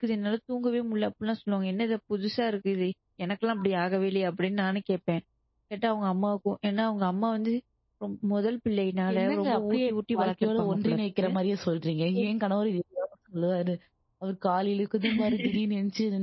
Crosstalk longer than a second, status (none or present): present